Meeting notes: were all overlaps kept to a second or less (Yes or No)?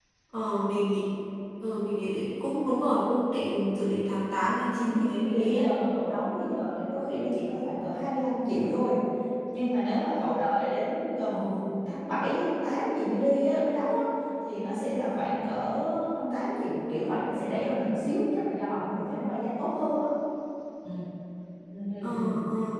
Yes